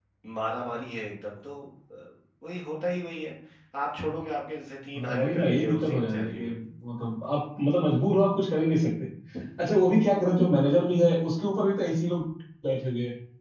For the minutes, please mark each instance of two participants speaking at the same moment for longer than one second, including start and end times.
5.0-6.5

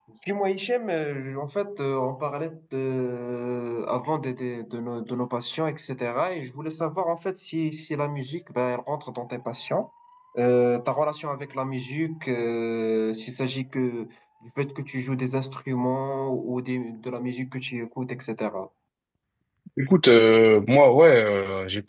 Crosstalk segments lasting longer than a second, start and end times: none

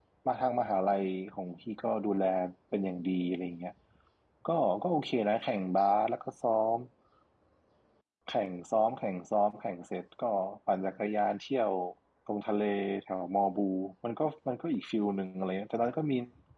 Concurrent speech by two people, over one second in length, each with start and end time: none

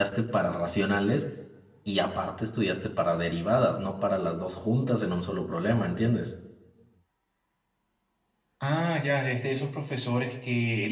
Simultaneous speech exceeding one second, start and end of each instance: none

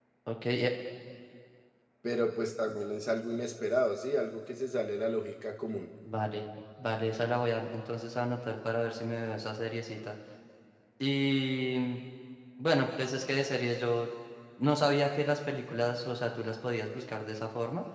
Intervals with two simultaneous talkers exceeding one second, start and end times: none

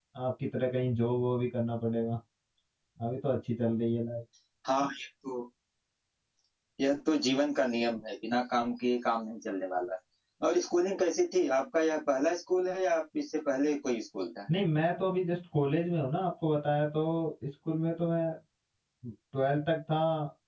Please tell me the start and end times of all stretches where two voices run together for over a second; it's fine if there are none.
none

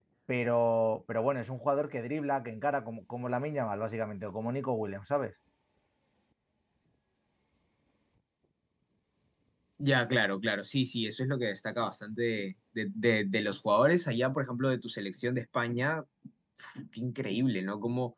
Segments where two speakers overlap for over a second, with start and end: none

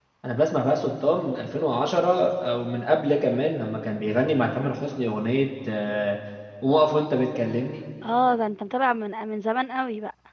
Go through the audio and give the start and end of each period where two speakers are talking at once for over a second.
none

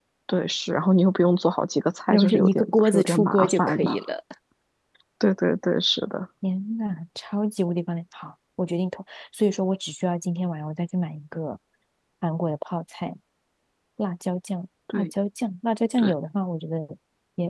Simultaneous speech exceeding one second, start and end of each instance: 2.1-4.0

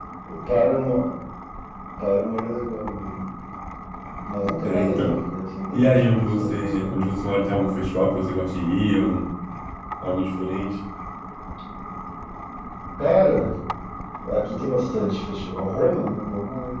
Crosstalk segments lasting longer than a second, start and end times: 5.7-7.1

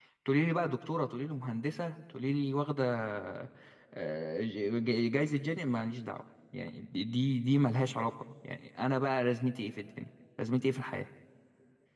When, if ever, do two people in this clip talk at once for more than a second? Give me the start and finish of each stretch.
none

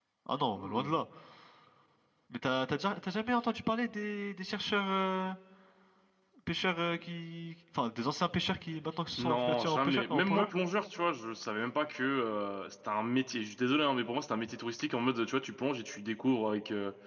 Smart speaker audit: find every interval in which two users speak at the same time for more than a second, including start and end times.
9.2-10.5

